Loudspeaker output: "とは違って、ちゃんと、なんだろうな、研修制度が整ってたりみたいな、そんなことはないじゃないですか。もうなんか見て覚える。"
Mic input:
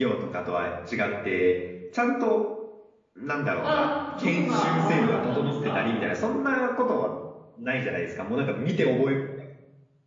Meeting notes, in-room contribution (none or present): present